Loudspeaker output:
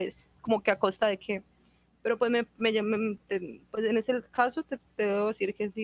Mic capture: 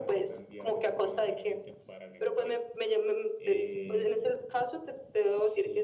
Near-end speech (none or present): present